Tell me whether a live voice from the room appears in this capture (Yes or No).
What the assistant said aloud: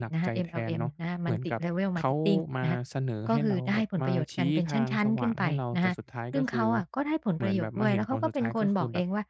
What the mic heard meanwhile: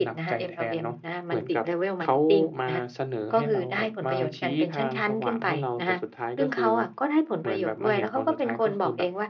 No